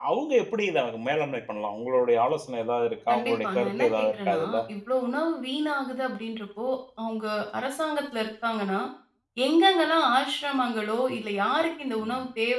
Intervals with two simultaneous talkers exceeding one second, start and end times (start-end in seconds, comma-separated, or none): 3.1-4.4